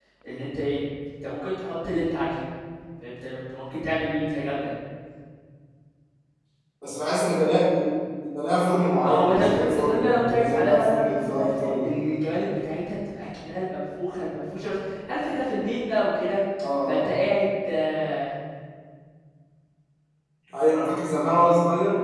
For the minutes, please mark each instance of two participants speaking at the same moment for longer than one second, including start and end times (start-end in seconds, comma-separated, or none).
9.0-11.9